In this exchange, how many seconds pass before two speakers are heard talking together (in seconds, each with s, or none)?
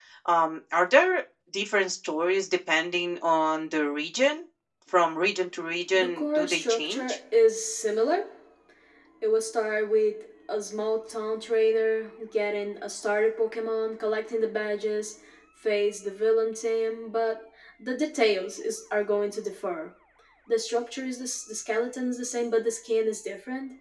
5.9 s